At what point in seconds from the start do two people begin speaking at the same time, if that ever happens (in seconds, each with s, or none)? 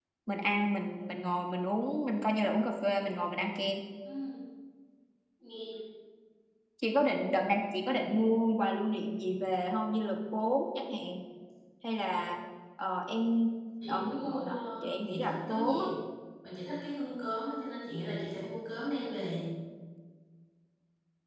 13.9 s